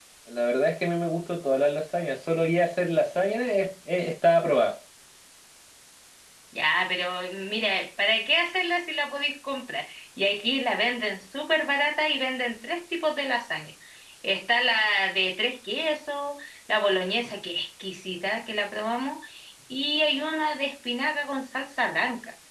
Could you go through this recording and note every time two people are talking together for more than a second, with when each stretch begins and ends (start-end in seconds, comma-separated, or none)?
none